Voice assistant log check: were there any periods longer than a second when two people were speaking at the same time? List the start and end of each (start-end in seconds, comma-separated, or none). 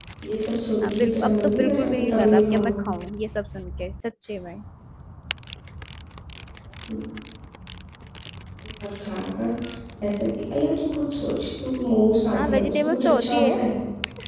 0.8-2.7, 12.3-13.6